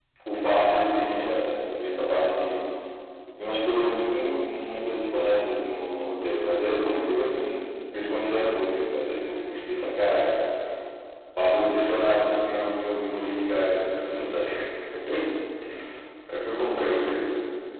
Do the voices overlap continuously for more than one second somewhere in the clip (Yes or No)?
No